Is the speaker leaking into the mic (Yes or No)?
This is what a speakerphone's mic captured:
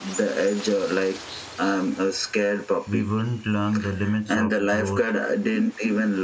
Yes